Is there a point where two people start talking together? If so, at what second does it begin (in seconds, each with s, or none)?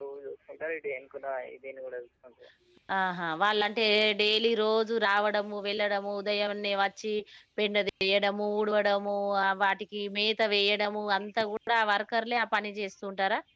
none